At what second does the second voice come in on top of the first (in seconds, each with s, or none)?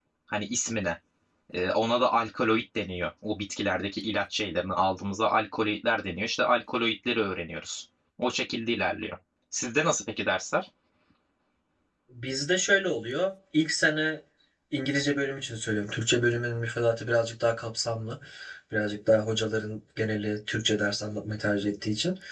none